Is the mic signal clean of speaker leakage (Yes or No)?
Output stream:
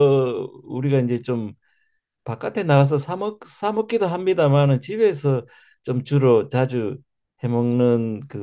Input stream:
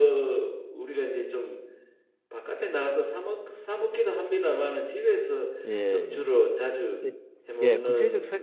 No